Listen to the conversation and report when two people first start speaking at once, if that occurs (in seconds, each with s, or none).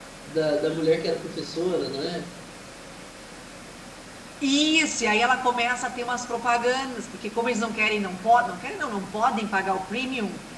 none